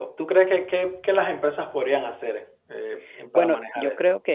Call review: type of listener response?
taking over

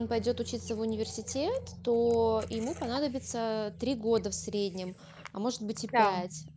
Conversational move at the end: listening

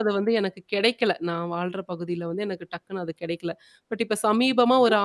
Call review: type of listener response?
listening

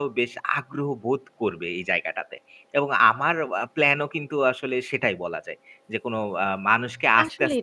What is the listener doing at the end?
taking over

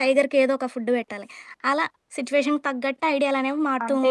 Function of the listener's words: taking over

